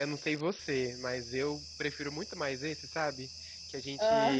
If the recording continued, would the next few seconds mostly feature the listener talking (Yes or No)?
No